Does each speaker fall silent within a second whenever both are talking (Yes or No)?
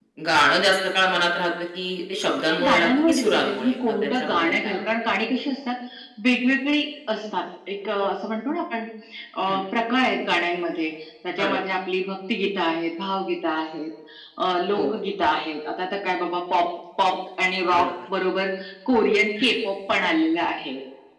No